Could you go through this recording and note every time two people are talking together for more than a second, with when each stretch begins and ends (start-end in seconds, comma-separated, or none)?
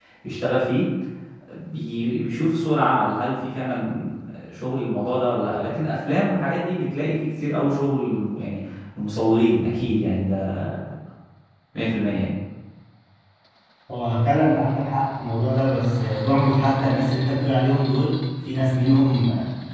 none